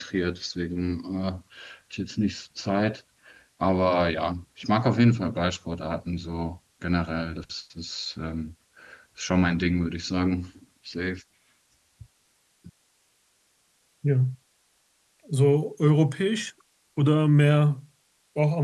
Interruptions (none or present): none